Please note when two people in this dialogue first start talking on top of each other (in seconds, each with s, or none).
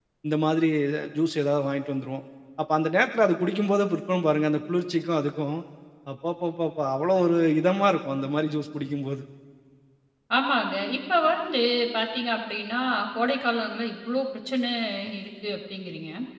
none